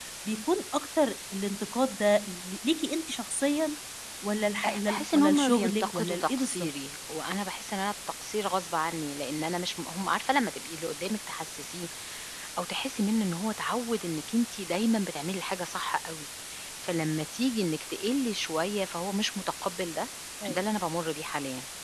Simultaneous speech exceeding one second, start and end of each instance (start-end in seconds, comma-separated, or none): 4.7-6.7